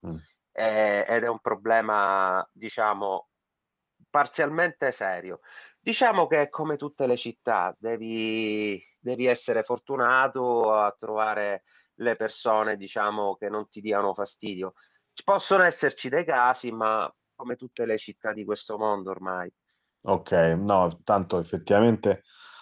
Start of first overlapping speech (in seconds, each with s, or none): none